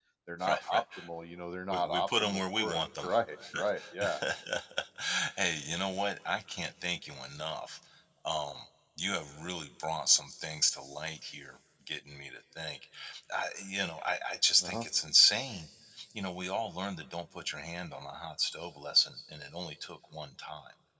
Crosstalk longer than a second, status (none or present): present